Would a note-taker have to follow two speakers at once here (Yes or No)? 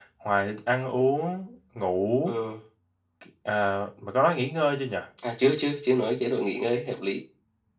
No